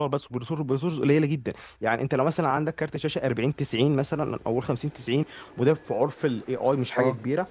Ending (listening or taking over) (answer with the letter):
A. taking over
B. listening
B